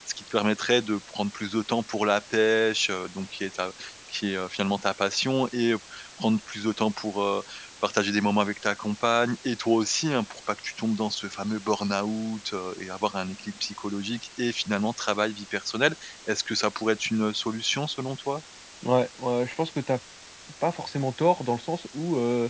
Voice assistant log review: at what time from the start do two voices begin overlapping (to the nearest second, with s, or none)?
none